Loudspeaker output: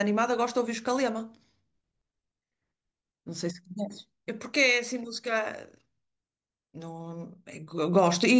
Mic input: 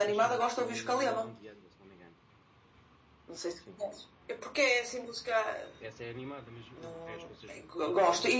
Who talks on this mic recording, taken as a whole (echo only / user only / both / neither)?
both